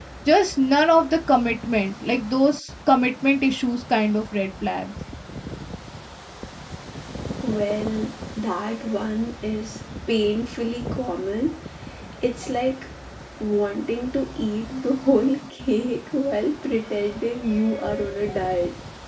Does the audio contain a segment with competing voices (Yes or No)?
No